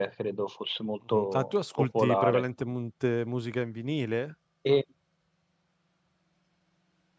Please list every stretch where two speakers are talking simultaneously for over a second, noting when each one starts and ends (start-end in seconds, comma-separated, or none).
1.1-2.4